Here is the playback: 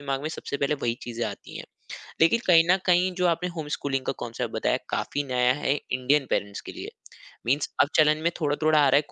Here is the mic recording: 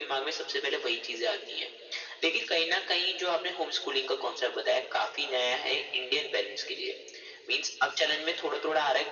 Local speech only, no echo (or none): none